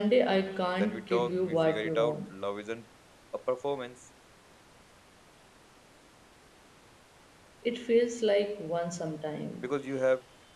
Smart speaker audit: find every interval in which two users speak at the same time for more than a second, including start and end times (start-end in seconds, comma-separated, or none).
0.8-2.3